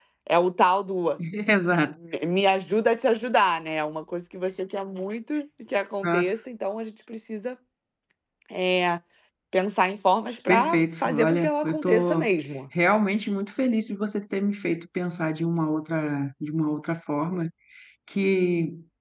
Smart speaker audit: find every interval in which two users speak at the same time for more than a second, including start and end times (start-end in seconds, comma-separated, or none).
10.5-12.3